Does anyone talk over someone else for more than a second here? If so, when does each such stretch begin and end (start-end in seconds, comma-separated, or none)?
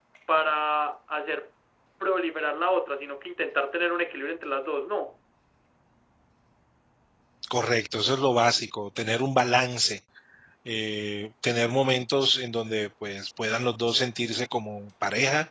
none